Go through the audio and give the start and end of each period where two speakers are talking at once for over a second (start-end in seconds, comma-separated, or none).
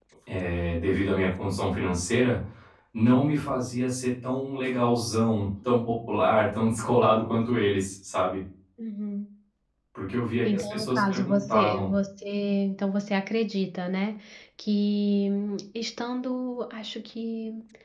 10.4-11.9